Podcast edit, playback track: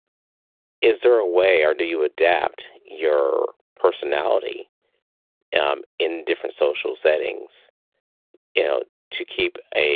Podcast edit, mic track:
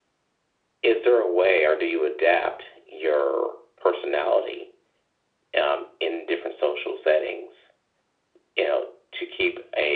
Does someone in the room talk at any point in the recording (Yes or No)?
No